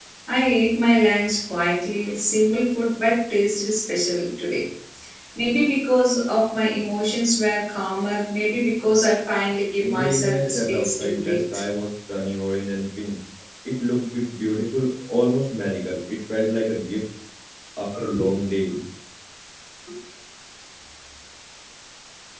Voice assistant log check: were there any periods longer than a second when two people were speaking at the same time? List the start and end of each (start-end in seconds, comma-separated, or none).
9.8-11.4